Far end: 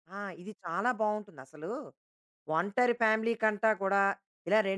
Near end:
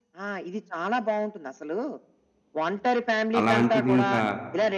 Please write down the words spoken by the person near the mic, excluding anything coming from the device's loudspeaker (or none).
అలాంటిదింకా